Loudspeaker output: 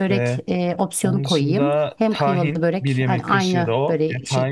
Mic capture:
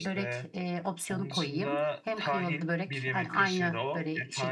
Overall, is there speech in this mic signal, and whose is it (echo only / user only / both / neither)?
echo only